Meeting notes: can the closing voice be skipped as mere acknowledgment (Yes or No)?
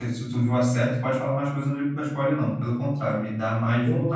No